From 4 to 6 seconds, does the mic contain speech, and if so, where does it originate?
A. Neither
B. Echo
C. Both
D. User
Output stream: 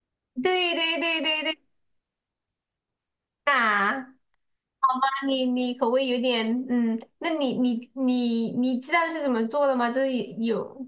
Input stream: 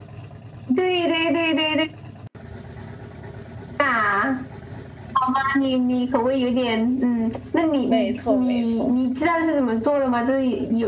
B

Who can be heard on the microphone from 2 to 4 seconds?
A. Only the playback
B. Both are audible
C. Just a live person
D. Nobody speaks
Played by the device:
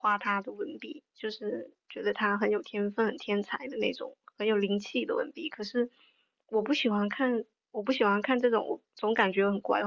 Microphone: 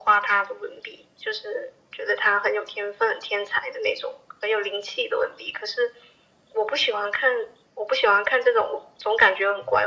A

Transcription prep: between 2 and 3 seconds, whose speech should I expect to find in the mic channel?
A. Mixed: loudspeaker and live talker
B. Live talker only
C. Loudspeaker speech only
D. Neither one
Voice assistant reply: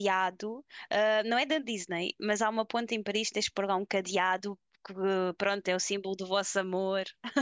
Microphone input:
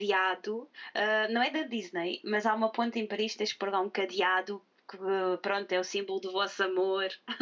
C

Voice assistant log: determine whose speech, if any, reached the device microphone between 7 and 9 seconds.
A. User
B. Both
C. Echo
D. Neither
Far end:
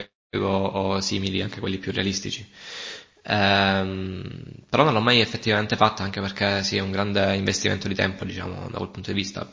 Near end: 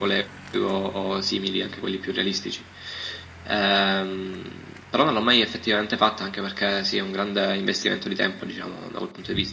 C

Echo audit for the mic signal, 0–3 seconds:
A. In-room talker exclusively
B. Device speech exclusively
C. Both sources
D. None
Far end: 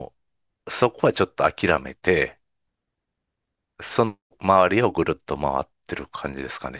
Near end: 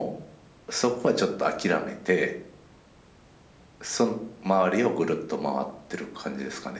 B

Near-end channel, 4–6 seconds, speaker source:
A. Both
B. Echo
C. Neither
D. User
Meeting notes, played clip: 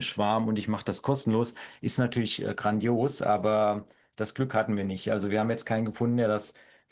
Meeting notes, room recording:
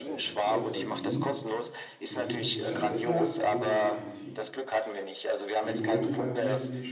A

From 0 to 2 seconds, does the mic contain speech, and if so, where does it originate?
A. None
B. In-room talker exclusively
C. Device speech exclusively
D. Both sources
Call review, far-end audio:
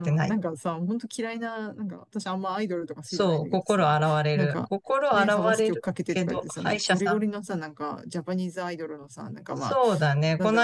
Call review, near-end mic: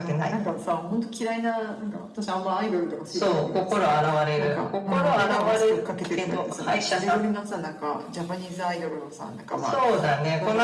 C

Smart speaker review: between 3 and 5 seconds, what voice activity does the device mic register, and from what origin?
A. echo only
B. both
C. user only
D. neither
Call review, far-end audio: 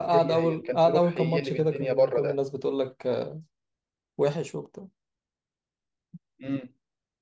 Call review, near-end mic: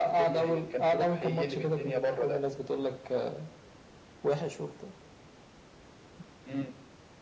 A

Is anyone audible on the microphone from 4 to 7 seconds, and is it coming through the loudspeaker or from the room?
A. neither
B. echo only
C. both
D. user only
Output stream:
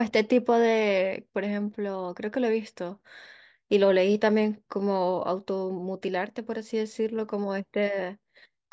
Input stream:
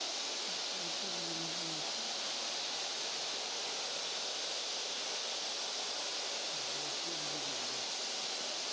A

